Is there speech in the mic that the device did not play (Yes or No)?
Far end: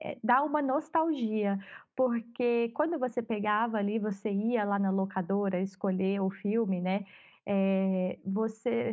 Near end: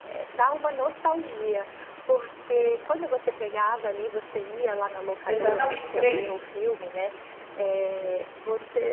Yes